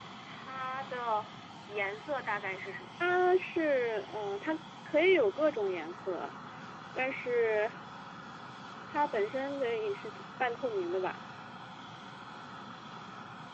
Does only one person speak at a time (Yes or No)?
Yes